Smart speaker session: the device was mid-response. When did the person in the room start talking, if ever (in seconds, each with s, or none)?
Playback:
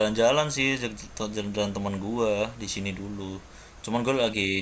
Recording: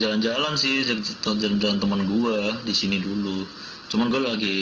none